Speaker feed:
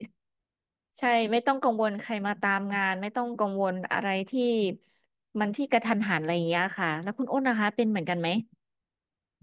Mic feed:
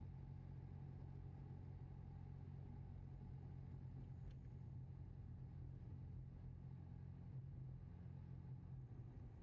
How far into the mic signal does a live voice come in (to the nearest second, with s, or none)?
none